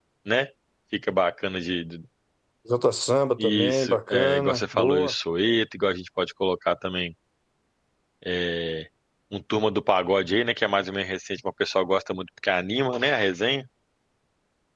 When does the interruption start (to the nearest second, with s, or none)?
3 s